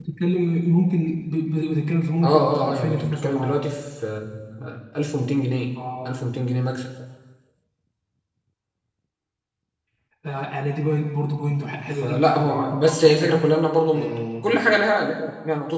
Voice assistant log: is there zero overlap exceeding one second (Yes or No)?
No